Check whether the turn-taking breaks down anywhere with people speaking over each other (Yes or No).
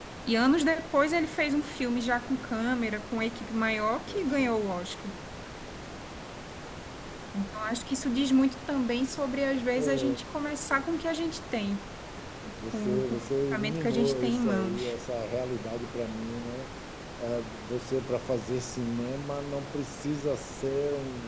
Yes